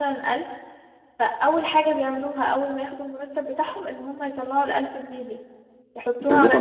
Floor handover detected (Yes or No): Yes